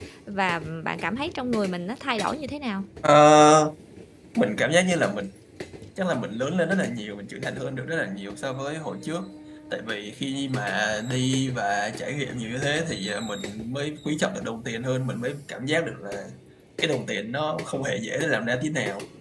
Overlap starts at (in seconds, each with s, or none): none